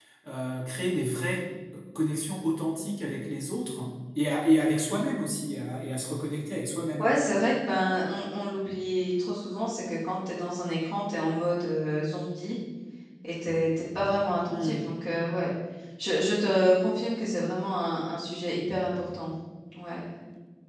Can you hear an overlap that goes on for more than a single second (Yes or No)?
No